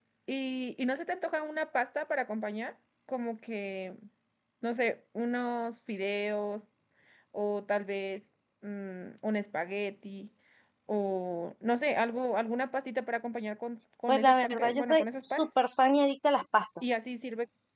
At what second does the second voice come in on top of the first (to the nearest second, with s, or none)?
14 s